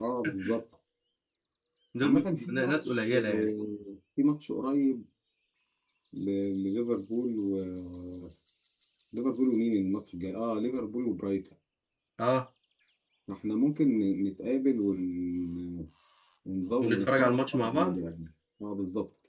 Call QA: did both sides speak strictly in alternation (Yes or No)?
No